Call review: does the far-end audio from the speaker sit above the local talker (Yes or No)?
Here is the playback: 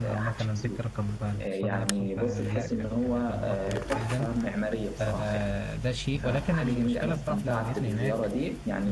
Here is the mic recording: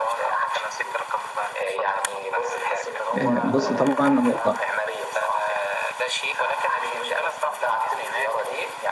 No